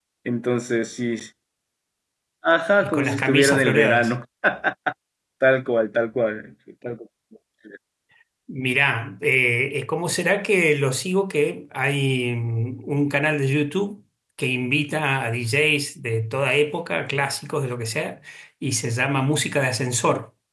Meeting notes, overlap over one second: present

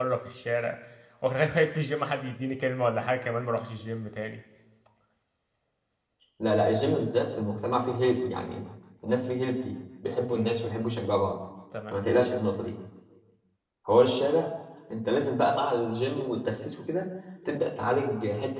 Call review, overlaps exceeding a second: none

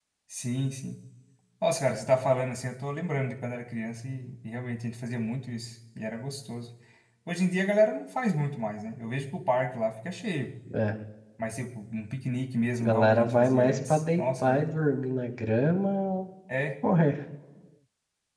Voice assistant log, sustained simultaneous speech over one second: present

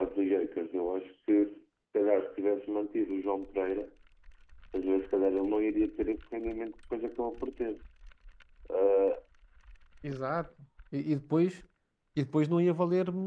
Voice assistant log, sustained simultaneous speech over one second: none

